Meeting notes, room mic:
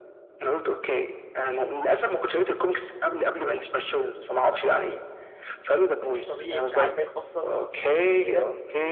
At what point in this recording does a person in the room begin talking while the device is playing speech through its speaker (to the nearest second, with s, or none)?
6 s